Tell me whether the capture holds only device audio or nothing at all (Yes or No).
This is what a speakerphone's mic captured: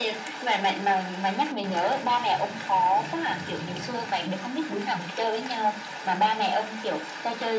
Yes